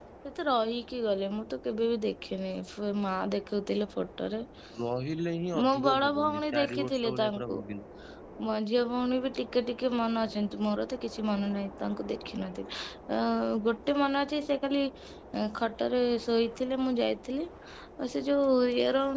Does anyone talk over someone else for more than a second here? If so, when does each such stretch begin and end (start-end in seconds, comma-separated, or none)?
5.7-7.6